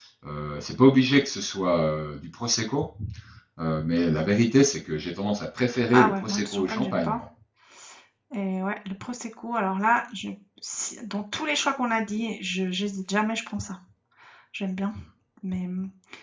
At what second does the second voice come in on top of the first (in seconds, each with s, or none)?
5.9 s